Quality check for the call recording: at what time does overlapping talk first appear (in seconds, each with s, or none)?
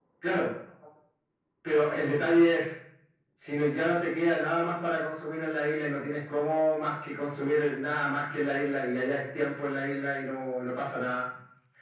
none